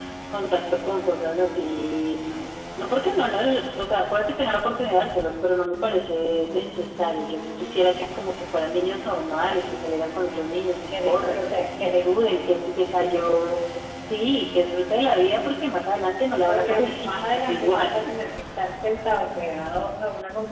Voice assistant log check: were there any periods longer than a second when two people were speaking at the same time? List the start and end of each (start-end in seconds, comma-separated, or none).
16.5-17.9